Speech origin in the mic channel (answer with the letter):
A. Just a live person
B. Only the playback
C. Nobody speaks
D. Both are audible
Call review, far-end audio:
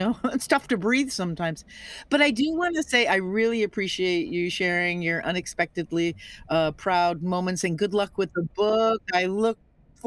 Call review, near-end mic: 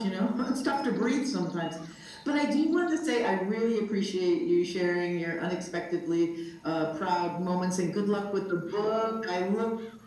B